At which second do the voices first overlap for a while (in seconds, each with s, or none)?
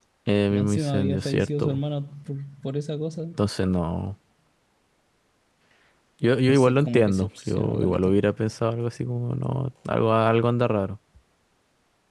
0.5 s